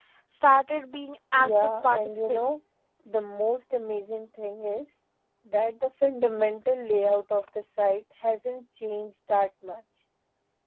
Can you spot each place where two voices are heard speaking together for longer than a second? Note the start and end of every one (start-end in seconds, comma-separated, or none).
1.4-2.6